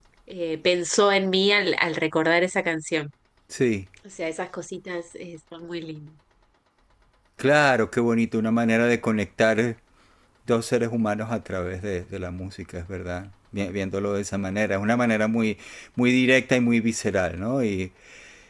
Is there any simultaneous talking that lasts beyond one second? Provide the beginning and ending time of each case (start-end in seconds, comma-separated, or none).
none